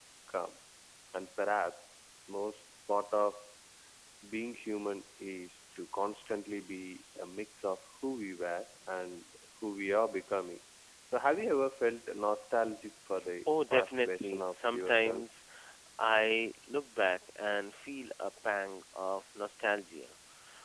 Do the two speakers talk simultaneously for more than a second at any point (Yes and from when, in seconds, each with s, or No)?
Yes, from 13.5 s